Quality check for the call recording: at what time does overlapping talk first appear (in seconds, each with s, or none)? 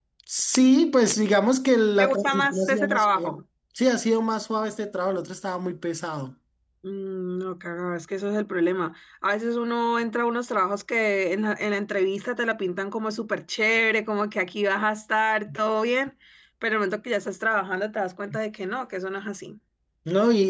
2.0 s